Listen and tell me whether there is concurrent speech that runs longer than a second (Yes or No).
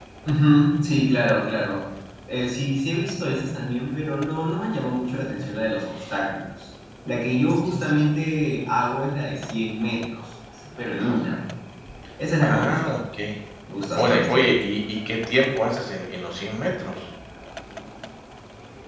No